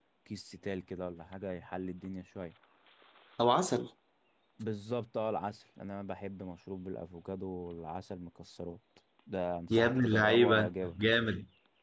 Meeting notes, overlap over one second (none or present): present